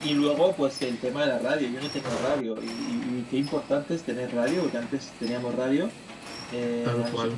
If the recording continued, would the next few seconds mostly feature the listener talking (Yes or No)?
No